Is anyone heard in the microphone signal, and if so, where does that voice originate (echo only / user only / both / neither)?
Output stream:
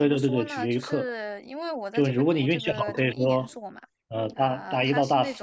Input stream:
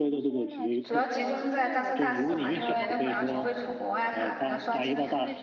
both